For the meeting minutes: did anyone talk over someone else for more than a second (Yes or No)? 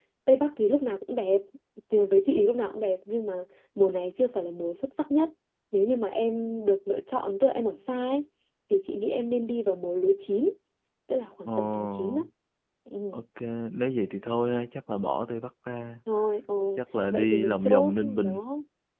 Yes